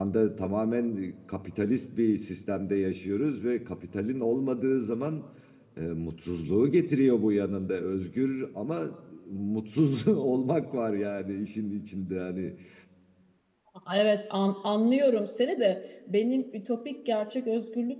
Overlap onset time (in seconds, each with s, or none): none